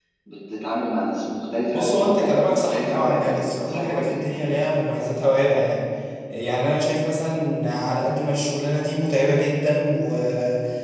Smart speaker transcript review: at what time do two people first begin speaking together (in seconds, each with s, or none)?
1.7 s